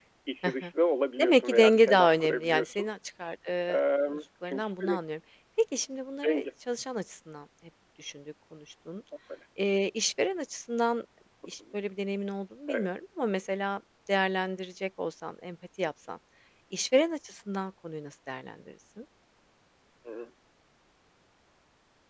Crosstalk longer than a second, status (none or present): present